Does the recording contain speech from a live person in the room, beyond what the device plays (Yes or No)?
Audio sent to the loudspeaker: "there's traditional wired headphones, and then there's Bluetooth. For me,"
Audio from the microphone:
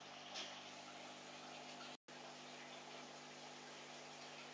No